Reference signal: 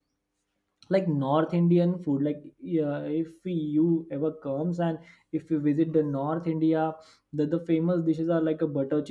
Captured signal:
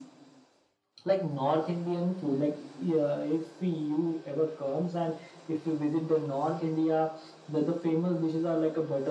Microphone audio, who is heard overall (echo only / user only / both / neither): echo only